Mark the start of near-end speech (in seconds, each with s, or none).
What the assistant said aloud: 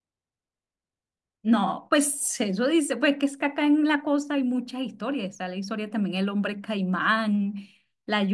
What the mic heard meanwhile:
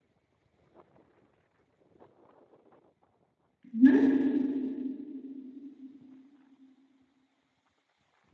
3.7 s